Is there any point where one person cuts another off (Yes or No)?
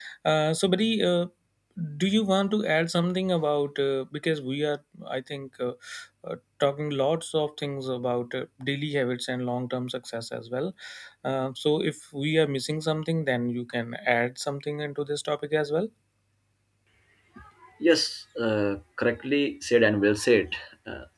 No